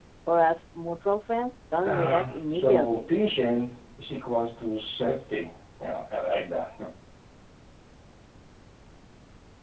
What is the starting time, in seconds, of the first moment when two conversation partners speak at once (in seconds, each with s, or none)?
1.8 s